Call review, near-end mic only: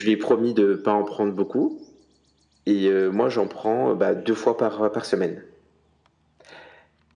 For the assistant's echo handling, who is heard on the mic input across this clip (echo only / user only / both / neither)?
echo only